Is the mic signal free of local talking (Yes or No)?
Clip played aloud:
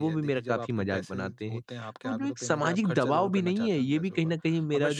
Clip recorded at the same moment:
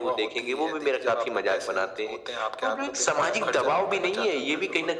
Yes